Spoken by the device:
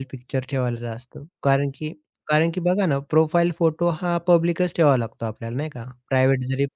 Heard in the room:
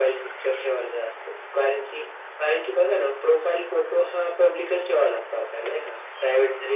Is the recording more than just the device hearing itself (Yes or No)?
No